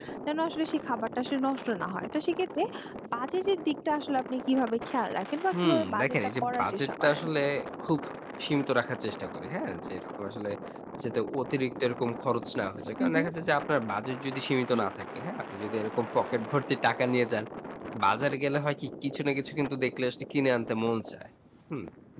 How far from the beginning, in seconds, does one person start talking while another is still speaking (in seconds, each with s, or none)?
5.5 s